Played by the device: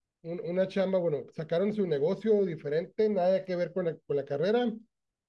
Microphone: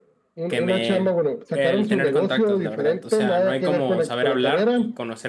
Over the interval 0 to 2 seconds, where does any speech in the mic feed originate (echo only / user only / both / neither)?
both